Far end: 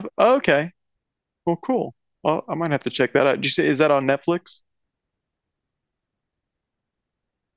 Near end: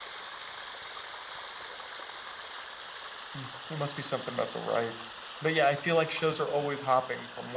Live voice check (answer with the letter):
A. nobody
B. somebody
B